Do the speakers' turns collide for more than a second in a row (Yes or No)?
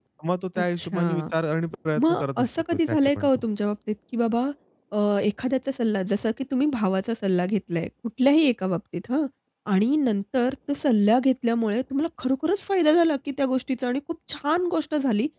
Yes